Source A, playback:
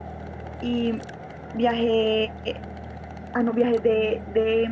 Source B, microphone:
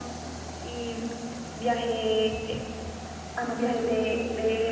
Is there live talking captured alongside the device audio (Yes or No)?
No